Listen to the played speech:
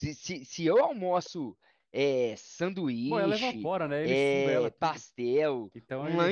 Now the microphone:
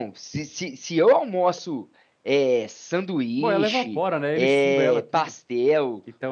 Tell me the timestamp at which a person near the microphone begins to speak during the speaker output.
none

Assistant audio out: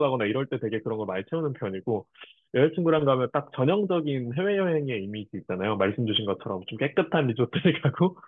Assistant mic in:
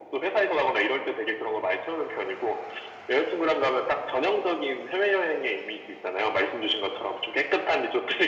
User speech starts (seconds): none

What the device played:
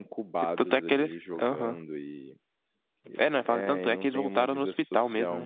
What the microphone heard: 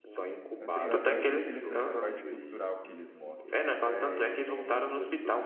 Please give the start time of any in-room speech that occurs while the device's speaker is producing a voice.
0.6 s

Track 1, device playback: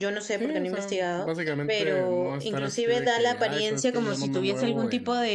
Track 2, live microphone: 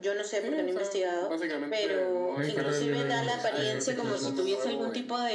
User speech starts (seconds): 2.3 s

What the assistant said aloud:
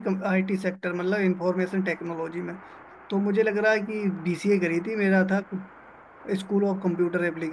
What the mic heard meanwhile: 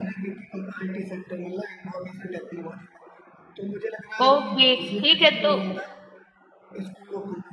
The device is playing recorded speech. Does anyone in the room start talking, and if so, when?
4.2 s

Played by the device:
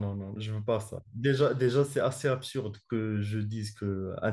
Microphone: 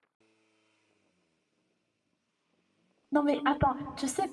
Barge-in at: 3.1 s

